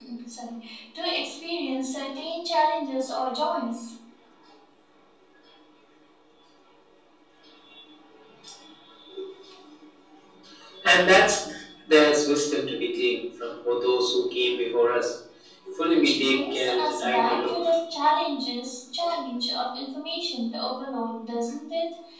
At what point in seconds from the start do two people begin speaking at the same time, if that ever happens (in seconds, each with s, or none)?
15.9 s